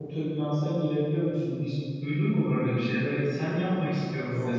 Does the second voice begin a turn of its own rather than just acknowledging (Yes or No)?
No